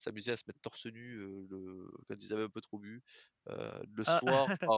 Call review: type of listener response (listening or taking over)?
listening